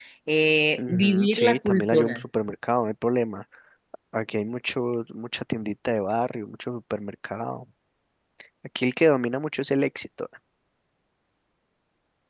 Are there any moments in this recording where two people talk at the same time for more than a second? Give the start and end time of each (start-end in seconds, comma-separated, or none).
0.8-2.2